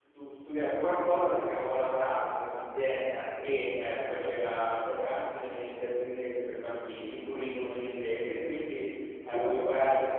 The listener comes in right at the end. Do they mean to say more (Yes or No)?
No